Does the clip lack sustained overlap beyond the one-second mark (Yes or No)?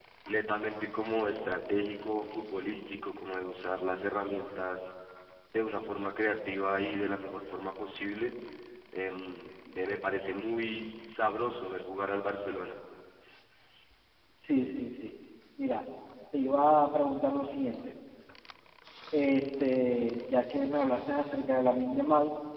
Yes